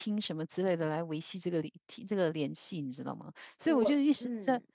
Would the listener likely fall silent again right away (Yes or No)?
Yes